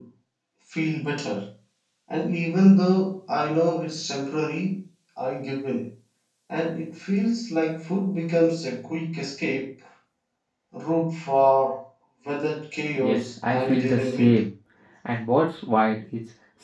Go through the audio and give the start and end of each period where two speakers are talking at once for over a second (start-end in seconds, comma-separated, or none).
13.0-14.4